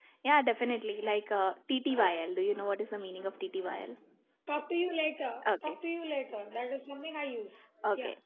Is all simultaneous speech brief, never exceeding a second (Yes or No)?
Yes